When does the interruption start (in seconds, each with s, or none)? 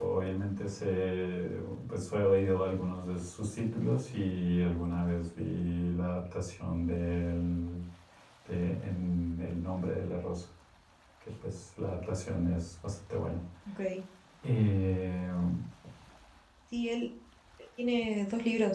none